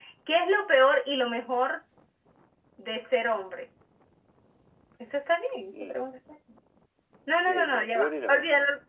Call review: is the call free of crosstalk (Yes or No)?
No